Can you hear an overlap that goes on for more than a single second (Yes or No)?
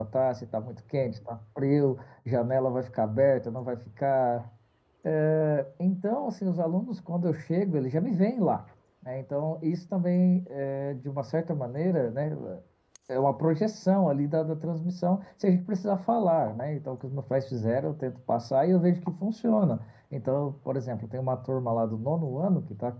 No